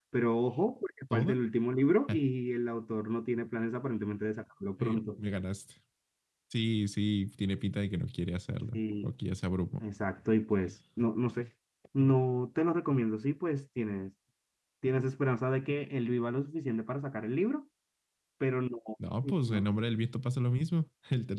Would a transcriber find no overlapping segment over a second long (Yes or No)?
Yes